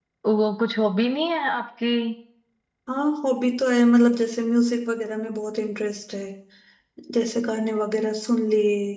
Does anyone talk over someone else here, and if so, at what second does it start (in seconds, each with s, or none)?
none